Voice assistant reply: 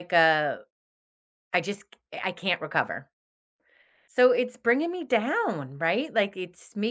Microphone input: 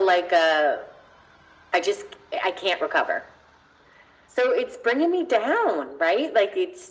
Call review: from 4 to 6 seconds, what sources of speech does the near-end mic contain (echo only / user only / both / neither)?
echo only